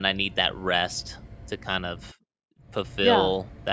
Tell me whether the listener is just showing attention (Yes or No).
Yes